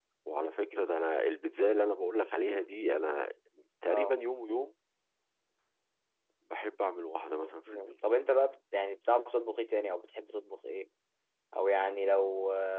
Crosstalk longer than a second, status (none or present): none